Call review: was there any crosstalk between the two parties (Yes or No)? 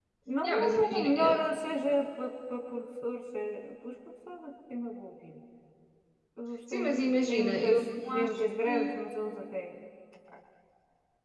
Yes